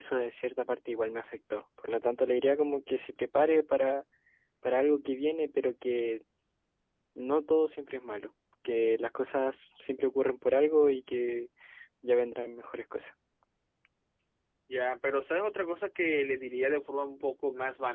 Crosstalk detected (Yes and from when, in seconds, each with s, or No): No